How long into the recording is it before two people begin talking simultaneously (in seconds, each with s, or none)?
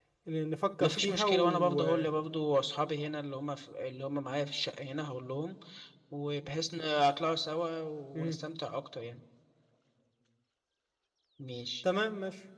0.8 s